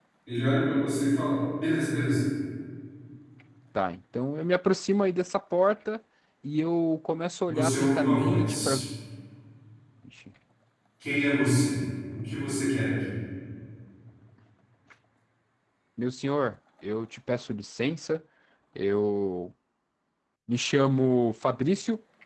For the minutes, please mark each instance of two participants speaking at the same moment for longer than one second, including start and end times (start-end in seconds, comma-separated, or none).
7.5-8.8